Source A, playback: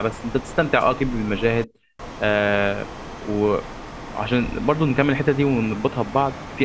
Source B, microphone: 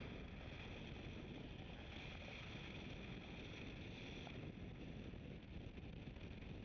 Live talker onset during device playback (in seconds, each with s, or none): none